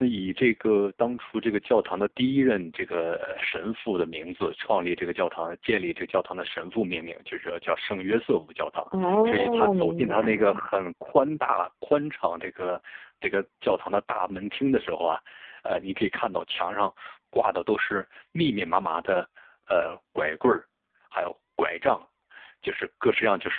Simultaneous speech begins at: 8.9 s

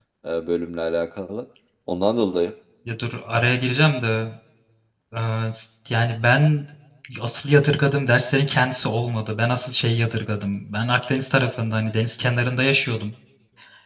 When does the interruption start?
none

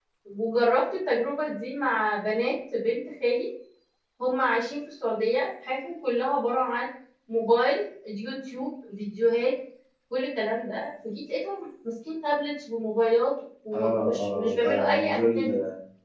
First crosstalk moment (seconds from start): 13.7 s

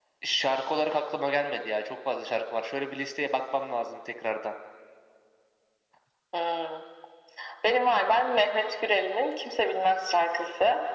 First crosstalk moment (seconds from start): none

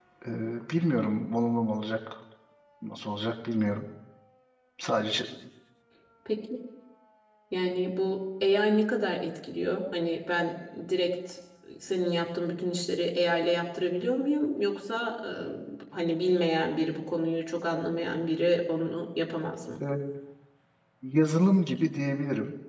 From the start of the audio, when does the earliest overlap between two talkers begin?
none

